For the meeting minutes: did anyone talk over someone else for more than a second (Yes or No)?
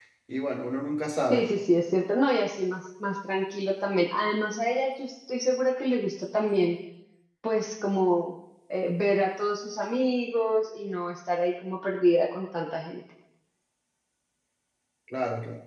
No